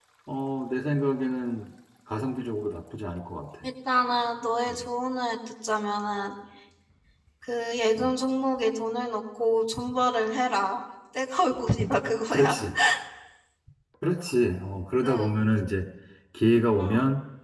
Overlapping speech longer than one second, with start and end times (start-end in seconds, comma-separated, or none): none